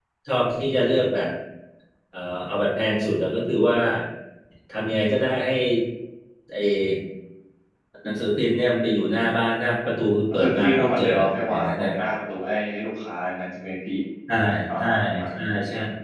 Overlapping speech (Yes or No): Yes